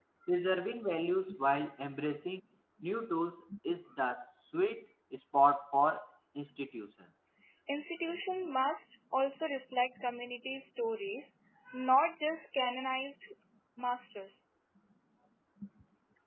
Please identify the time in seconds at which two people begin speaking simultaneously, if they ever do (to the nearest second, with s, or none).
none